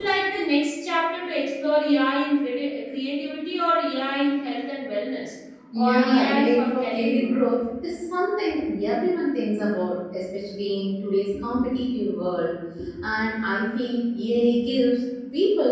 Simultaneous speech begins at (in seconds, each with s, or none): 5.7 s